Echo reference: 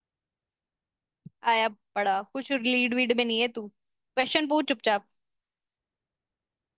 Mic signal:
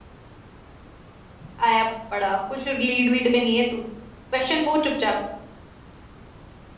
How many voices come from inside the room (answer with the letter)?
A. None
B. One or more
A